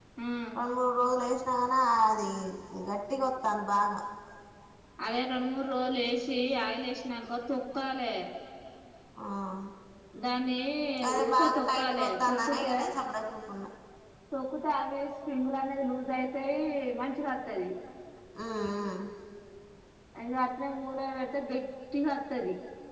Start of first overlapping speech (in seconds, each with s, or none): 11.2 s